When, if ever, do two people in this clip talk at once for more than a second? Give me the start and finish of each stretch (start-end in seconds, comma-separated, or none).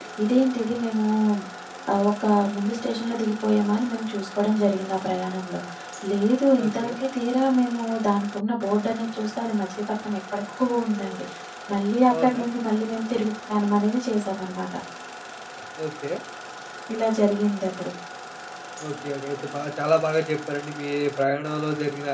none